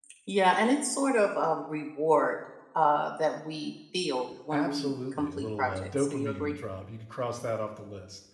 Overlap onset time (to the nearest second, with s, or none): 5 s